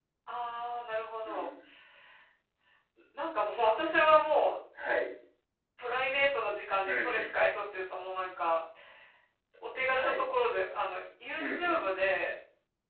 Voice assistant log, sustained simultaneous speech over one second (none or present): none